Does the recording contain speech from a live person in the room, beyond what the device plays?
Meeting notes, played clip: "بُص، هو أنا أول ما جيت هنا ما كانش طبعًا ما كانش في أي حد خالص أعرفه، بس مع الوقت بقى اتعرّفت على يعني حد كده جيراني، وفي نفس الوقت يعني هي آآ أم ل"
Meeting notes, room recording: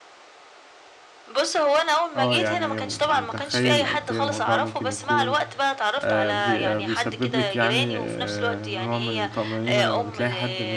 Yes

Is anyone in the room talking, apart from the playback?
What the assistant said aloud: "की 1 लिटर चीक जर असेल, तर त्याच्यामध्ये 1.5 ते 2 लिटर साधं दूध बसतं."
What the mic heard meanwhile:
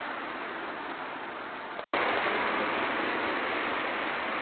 No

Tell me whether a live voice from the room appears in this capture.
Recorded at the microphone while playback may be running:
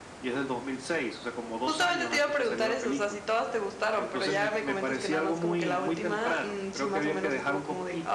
Yes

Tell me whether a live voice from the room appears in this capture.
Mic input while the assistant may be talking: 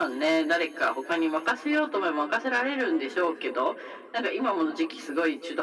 No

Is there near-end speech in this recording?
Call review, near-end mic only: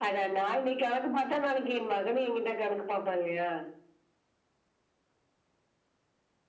No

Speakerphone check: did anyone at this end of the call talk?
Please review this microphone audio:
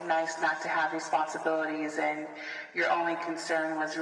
No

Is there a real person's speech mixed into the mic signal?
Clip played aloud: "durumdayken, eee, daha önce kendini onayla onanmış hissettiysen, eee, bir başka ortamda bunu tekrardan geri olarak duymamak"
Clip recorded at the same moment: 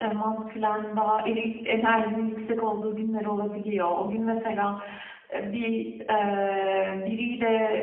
Yes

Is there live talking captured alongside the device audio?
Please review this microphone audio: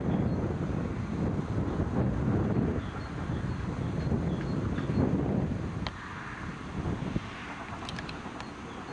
No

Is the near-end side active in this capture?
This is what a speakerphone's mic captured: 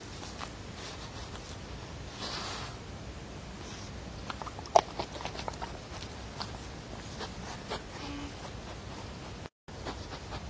No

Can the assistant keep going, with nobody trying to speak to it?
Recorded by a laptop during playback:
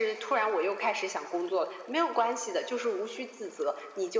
Yes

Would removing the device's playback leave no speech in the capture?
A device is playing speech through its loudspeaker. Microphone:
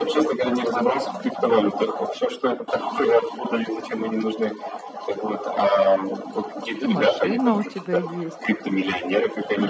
No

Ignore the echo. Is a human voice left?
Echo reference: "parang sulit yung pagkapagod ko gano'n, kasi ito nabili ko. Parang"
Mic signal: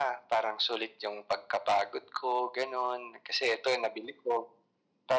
No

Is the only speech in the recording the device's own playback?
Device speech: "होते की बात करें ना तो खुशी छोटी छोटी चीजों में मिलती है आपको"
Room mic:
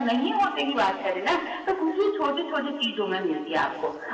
Yes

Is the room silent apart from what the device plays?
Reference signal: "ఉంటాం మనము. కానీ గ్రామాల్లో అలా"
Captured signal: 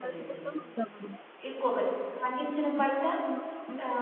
No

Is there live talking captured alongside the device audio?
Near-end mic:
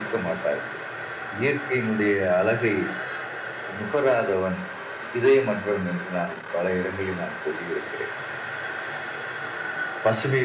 No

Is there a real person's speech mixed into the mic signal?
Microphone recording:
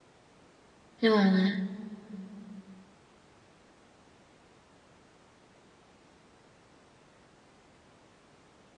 Yes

